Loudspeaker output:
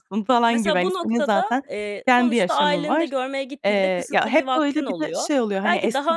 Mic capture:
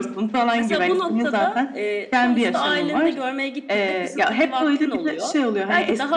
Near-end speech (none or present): none